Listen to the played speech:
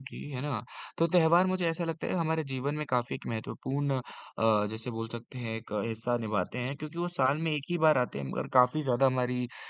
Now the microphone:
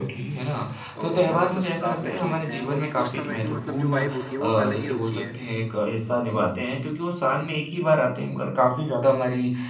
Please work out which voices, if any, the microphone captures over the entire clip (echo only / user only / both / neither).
both